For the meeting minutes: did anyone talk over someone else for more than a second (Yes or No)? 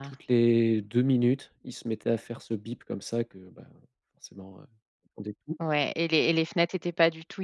No